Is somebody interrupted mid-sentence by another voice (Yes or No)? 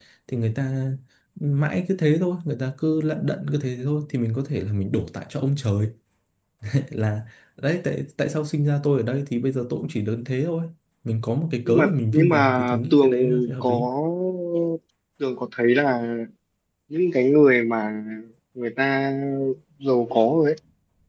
Yes